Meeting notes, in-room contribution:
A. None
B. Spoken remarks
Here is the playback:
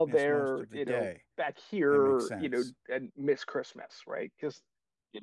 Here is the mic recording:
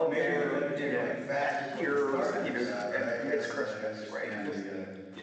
B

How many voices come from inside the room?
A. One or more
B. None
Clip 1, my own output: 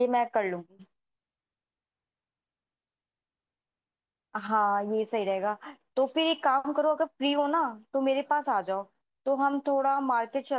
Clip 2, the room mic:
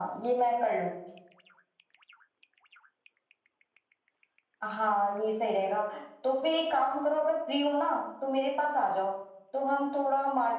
B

